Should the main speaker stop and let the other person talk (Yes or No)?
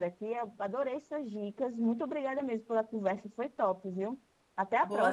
Yes